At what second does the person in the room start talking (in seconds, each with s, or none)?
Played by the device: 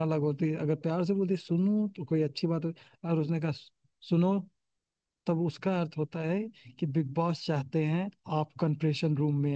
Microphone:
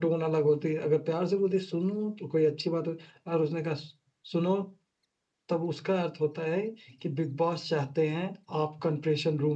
none